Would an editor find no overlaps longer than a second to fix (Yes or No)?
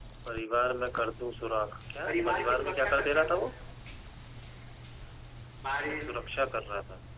No